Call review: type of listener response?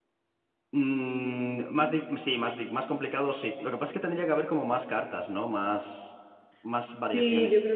taking over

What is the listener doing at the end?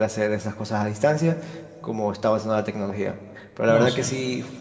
listening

